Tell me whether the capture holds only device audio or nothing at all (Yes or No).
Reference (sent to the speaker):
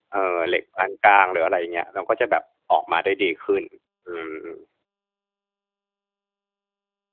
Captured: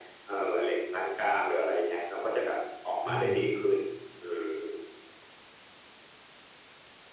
No